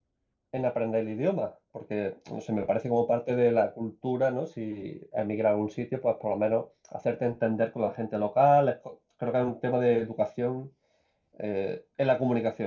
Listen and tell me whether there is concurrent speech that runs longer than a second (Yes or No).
No